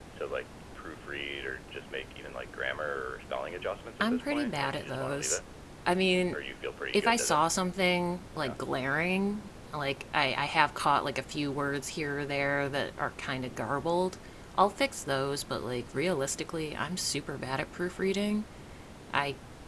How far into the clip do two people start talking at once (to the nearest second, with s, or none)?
4 s